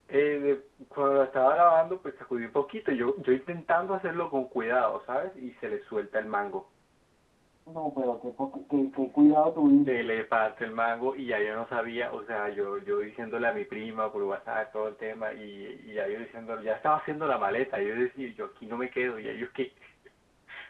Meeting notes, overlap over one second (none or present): none